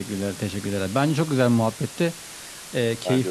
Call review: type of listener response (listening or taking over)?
listening